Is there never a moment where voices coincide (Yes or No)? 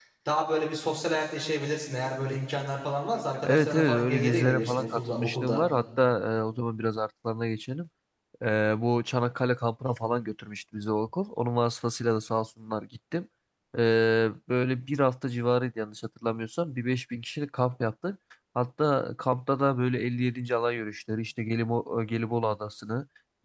No